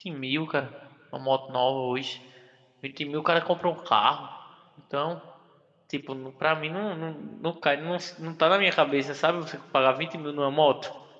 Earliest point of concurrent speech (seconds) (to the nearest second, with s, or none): none